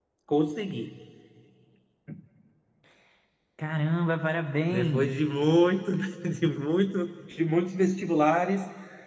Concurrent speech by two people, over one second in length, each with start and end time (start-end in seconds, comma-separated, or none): none